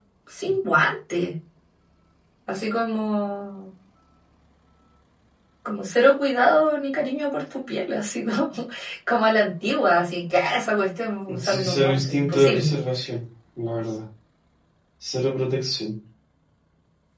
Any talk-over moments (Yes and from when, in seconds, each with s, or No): Yes, from 11.3 s